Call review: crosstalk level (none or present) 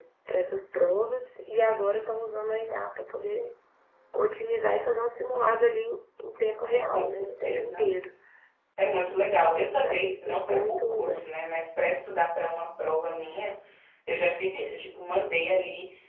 present